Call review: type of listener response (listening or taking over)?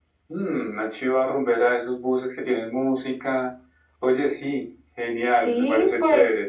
taking over